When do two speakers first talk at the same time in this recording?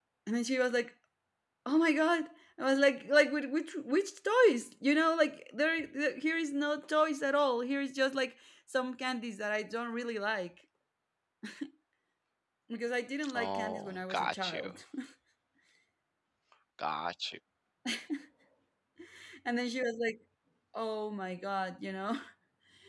13.3 s

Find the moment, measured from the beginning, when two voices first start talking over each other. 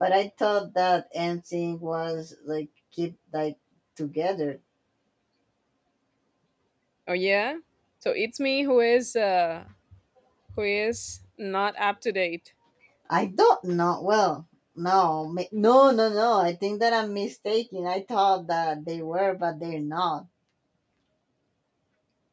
none

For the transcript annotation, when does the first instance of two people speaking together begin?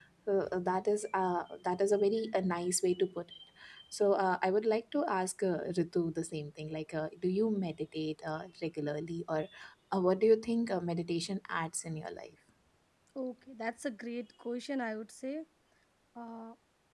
none

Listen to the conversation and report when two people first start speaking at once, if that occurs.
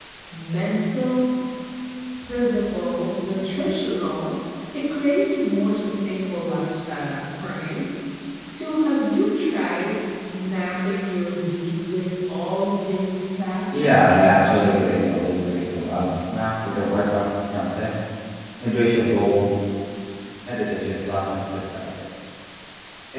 13.7 s

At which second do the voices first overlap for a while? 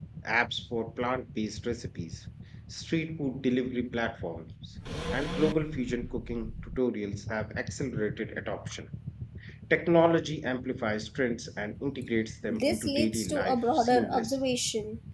12.5 s

